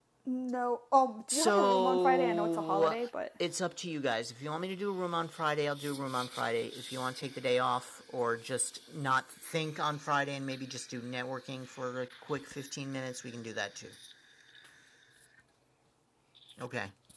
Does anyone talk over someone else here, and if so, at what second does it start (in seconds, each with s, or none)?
1.3 s